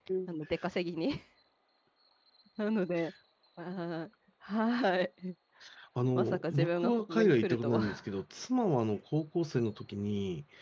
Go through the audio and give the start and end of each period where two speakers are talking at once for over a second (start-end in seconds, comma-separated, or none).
6.2-7.8